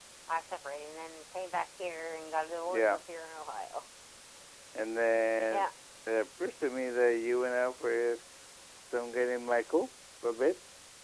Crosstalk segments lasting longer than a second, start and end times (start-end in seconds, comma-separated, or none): none